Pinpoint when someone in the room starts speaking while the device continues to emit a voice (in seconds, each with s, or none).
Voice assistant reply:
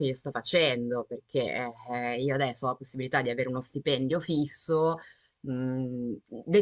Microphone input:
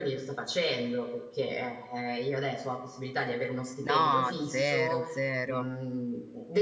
3.8 s